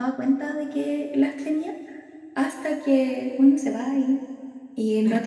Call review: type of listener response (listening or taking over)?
listening